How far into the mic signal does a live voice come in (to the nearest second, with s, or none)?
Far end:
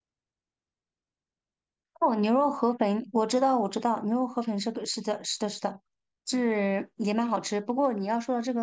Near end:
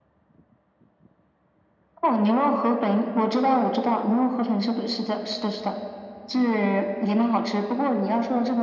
none